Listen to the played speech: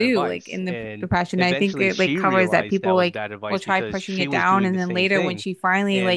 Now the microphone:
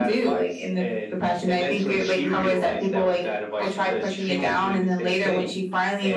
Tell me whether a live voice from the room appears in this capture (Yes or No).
No